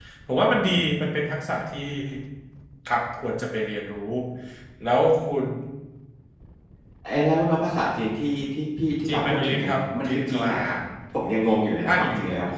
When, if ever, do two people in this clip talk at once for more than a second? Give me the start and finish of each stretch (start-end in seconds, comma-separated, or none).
9.1-10.8